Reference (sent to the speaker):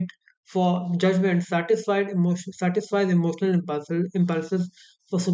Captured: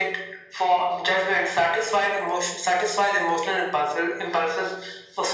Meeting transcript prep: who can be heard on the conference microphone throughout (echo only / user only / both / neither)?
echo only